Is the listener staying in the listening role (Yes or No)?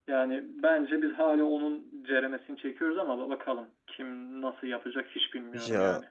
No